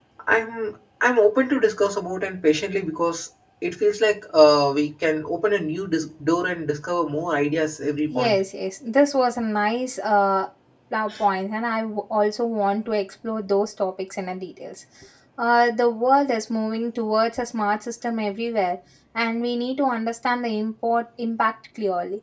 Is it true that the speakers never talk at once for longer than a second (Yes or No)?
Yes